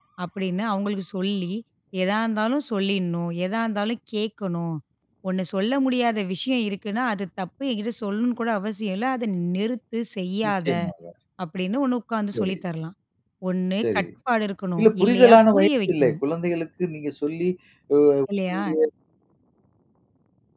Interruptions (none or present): present